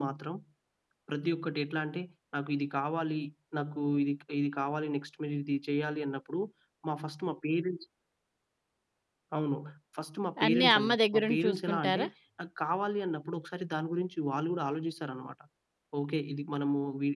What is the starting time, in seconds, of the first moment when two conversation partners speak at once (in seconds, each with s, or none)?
10.4 s